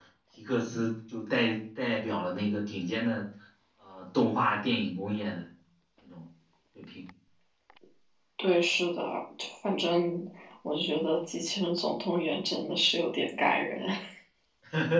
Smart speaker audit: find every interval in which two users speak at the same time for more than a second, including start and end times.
none

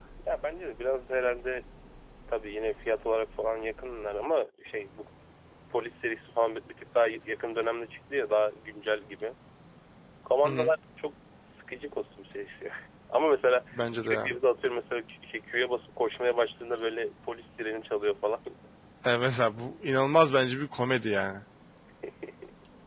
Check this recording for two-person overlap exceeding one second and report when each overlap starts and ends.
none

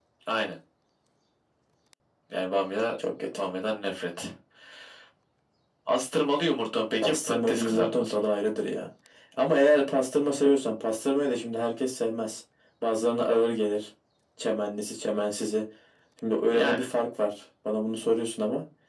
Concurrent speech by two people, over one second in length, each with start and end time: 7.0-8.3

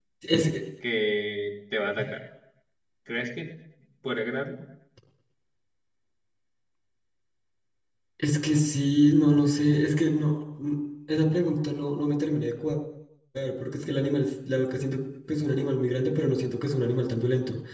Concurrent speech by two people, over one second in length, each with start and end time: none

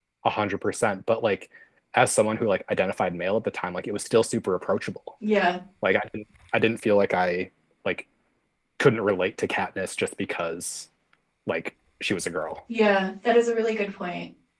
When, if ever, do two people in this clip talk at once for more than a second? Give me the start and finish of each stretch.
none

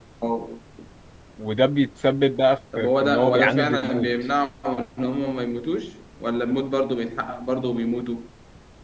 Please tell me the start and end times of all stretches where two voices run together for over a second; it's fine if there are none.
2.8-4.1

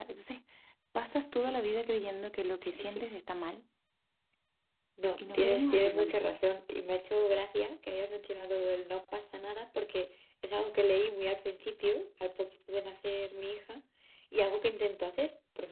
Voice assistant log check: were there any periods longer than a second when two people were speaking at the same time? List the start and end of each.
5.2-6.4

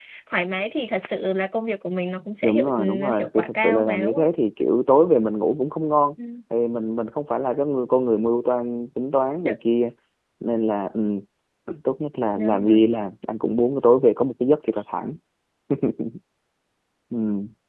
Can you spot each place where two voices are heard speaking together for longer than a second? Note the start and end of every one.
2.4-4.3

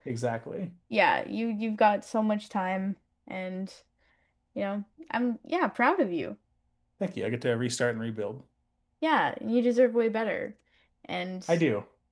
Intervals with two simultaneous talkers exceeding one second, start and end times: none

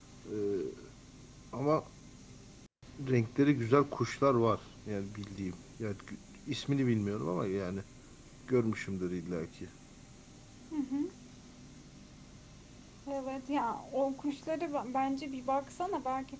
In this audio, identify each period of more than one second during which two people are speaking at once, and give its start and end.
none

